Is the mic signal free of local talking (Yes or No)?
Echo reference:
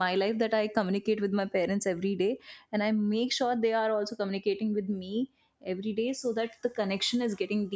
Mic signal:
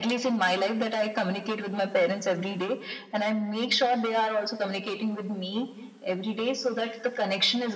Yes